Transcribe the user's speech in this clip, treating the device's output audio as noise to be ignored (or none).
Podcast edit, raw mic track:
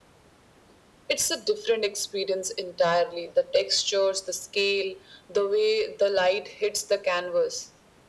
none